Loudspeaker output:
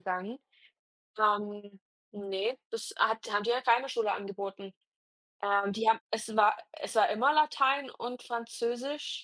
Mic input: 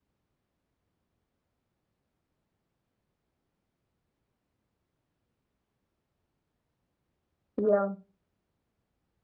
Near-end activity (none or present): present